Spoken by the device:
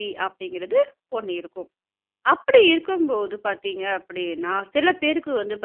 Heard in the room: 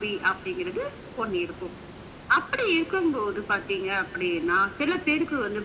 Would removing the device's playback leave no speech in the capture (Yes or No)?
Yes